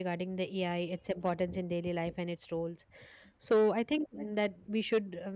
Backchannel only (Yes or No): Yes